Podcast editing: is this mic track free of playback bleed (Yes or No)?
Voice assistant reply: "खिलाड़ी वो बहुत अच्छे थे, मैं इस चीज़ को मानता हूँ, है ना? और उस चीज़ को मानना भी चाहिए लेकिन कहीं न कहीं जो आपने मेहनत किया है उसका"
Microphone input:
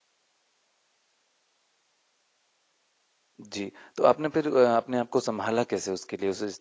Yes